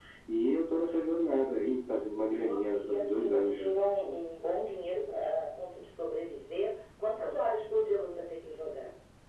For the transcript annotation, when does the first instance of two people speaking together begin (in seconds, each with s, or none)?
2.3 s